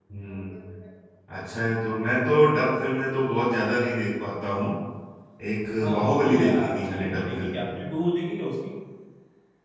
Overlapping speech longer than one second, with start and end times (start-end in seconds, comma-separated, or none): 5.8-7.7